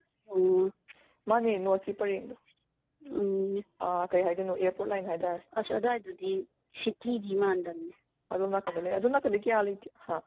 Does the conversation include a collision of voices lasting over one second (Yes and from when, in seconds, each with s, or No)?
No